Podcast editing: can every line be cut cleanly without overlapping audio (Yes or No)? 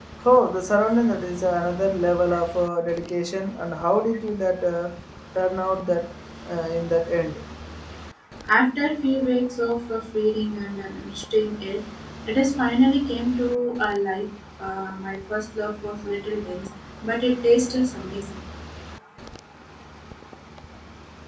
Yes